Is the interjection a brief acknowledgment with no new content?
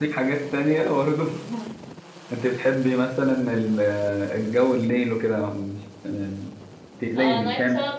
No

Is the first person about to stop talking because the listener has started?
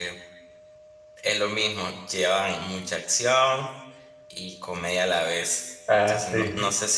No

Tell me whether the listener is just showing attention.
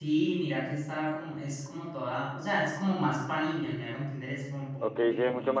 No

